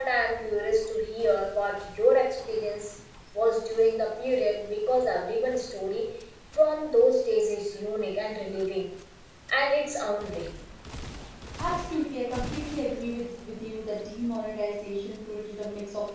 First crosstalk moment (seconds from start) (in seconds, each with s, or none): none